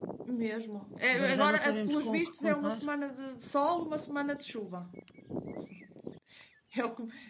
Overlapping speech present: Yes, from 1.1 s

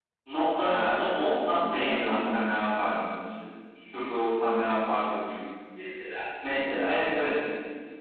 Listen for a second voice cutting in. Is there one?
Yes, from 0.5 s

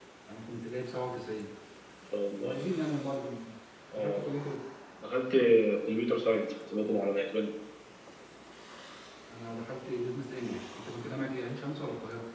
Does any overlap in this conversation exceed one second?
No

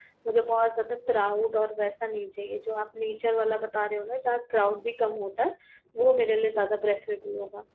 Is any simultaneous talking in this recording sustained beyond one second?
No

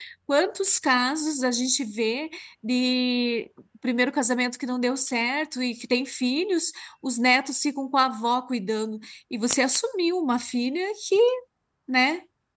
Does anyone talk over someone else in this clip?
No

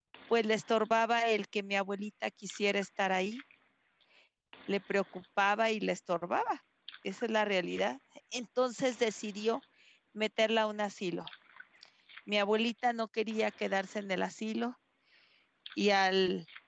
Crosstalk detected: No

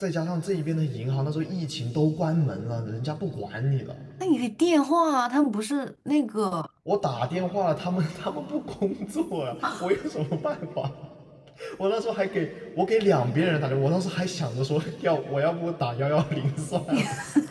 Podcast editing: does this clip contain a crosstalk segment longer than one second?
No

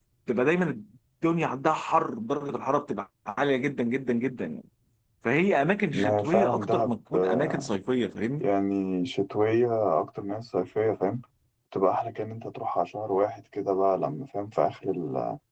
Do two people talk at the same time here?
Yes, from 5.9 s

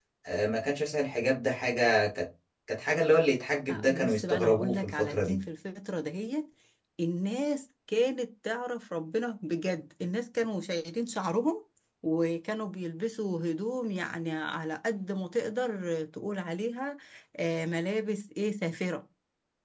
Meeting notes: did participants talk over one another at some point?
Yes, from 3.7 s

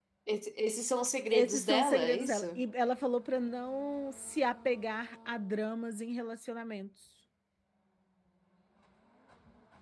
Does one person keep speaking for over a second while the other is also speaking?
Yes, from 1.3 s

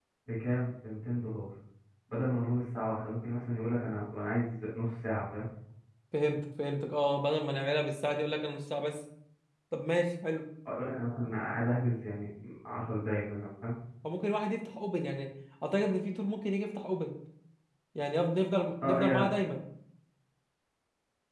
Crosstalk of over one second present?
No

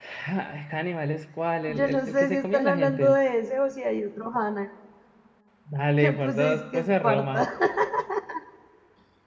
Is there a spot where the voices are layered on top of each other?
Yes, from 1.7 s

